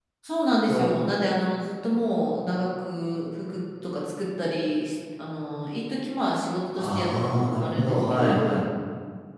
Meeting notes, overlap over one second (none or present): present